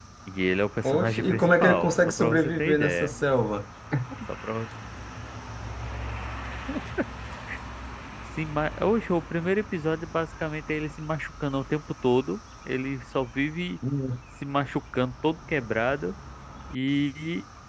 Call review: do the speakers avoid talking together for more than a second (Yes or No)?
No